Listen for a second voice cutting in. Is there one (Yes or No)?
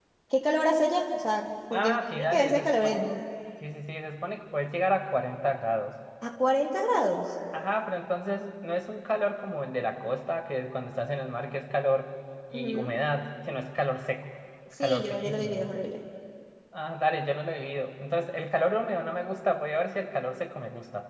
Yes